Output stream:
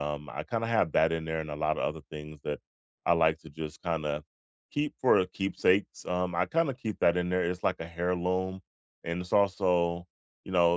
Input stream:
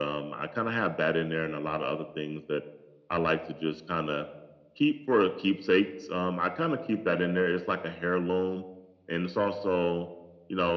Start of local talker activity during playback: none

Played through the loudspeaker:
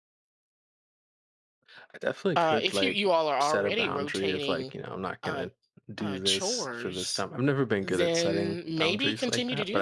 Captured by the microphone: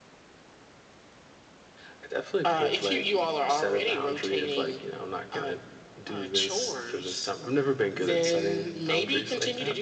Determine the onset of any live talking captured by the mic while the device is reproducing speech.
none

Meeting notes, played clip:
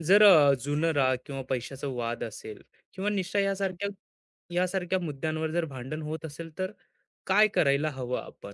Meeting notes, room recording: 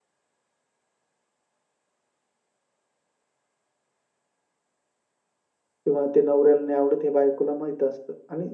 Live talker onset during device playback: 5.8 s

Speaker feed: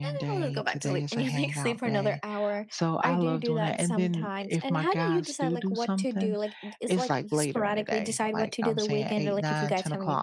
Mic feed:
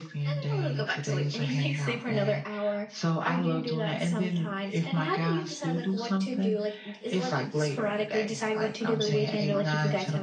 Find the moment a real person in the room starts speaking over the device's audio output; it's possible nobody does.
9.0 s

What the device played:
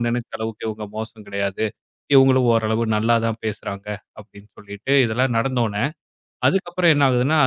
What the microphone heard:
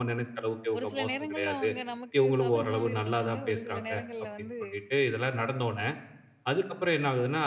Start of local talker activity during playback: 0.8 s

